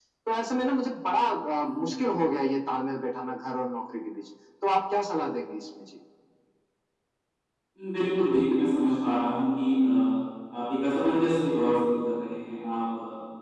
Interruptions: none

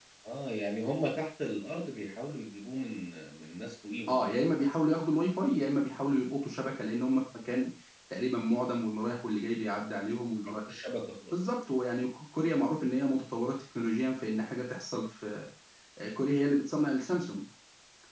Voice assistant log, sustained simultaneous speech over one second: none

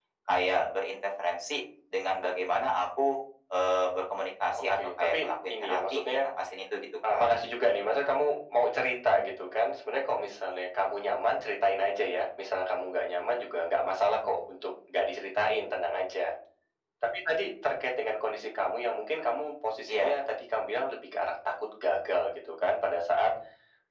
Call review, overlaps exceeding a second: present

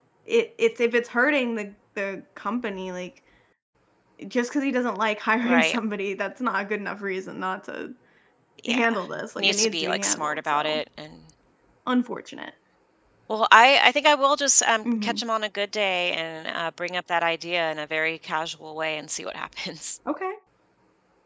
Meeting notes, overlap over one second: present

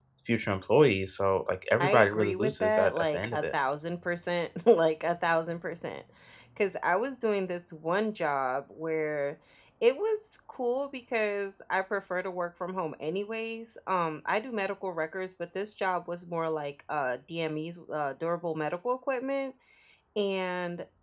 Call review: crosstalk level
present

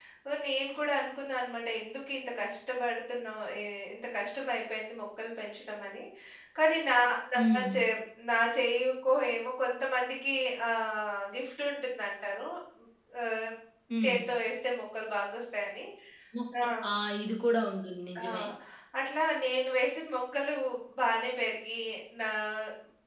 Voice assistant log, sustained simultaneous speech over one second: none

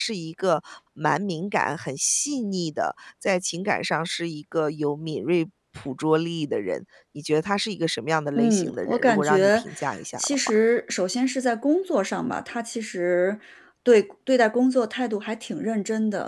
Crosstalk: present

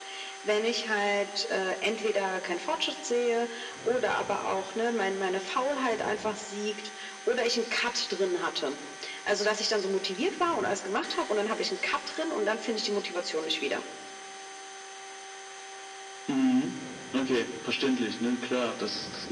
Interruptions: none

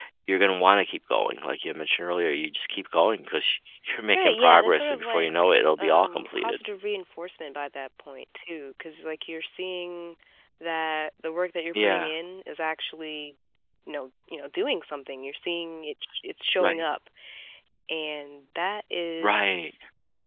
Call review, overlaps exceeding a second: present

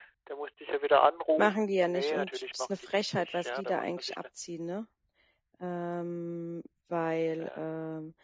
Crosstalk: present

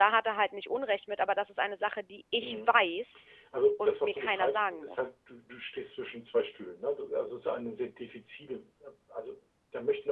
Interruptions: present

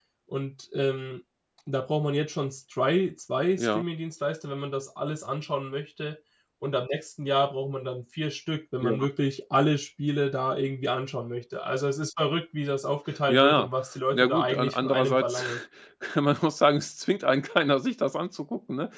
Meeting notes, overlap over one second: present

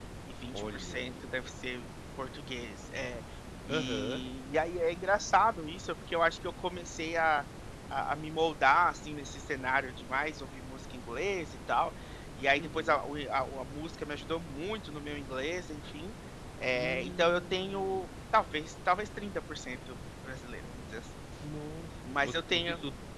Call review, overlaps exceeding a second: present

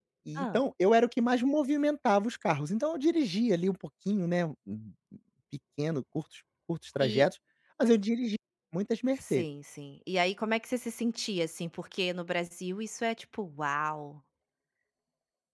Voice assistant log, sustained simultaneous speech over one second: none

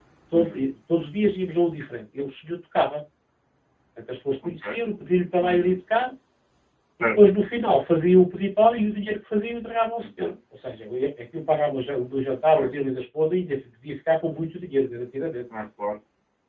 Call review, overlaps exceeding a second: none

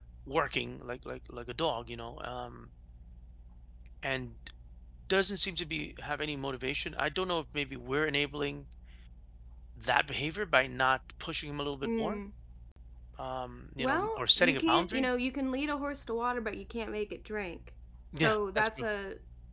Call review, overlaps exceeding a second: present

